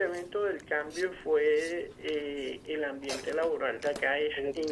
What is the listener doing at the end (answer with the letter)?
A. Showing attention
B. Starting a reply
A